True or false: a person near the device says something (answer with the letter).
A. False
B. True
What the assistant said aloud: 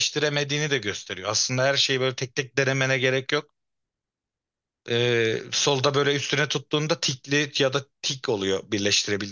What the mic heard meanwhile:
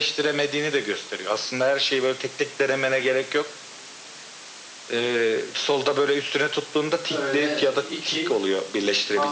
B